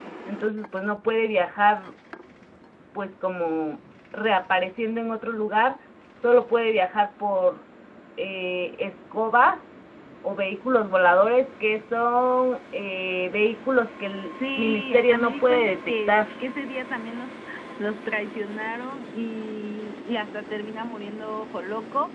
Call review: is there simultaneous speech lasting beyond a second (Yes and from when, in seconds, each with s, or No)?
Yes, from 14.2 s